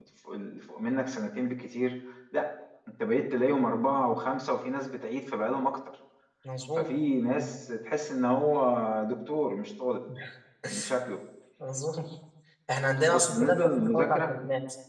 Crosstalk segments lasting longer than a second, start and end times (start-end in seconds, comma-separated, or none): 13.1-14.3